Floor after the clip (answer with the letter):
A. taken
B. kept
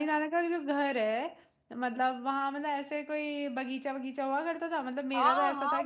A